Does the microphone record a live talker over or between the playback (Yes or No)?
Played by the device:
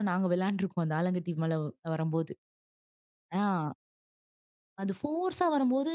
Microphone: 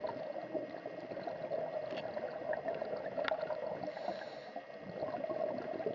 No